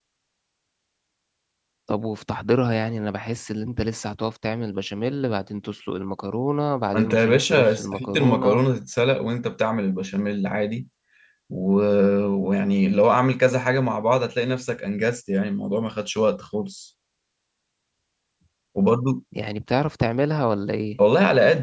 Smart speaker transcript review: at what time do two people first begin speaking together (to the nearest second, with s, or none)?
7 s